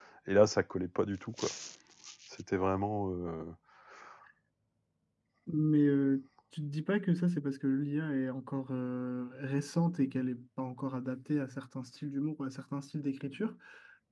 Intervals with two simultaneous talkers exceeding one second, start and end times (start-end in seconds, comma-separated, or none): none